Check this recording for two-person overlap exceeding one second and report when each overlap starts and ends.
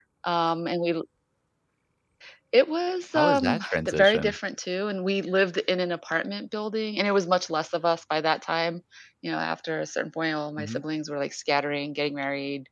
3.1-4.4

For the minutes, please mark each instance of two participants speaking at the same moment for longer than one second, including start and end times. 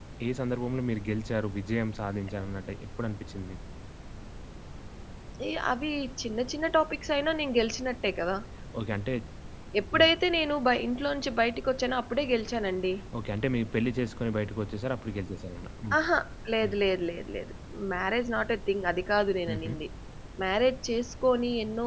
none

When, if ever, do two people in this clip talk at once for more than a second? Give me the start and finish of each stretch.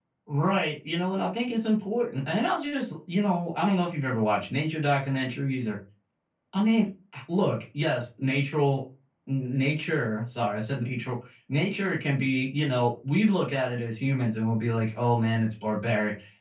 none

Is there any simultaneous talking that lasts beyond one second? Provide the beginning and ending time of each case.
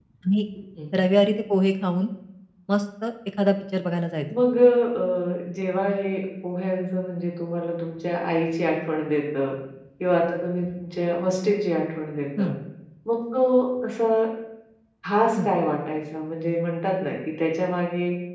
none

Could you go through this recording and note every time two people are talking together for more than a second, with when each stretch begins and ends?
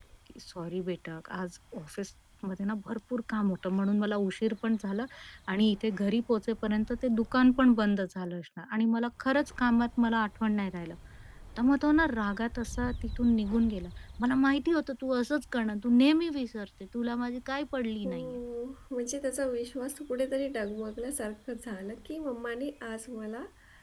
none

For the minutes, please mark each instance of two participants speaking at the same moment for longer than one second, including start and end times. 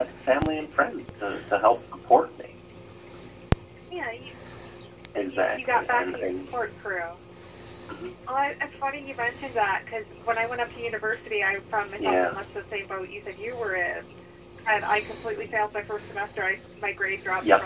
5.2-6.4

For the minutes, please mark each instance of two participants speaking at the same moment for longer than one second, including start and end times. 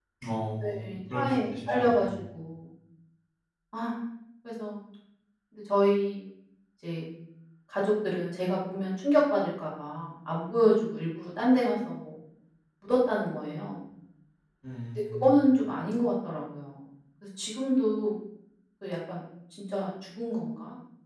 0.6-1.9

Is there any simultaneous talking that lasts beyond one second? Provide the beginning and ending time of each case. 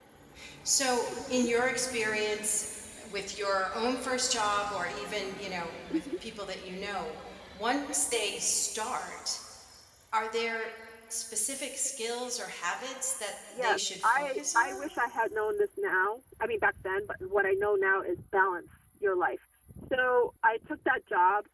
13.6-14.9

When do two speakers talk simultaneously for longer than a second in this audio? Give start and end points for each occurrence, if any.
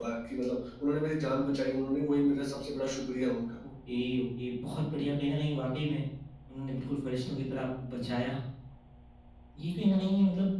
none

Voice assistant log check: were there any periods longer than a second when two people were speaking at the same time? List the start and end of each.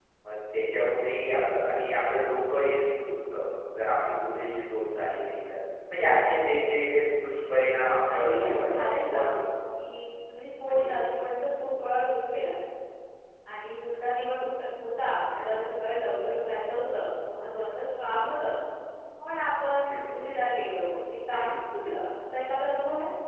8.1-9.3

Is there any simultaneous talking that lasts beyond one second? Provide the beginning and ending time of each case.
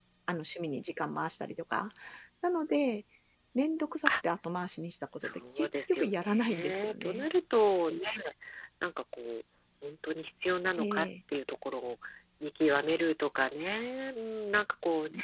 5.1-7.3

